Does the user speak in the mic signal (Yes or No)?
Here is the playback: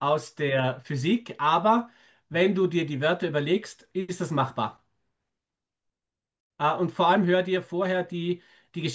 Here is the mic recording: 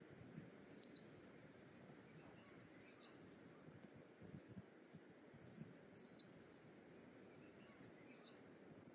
No